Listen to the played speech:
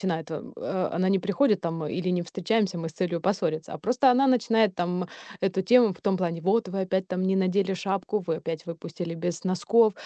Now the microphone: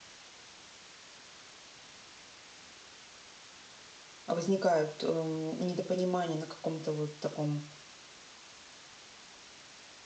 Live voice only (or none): возникают эм, недопонимания на каком-то вот таком